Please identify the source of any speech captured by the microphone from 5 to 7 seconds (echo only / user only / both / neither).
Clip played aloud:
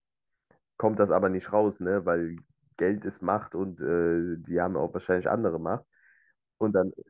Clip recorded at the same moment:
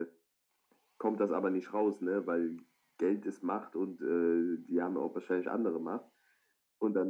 echo only